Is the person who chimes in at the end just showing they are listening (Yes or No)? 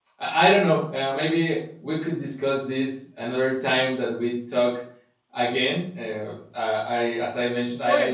Yes